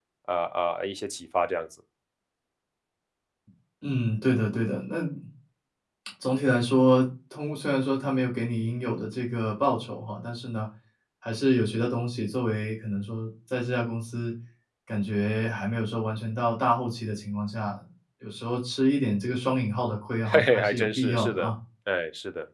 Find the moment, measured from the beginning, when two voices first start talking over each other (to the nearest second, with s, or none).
20 s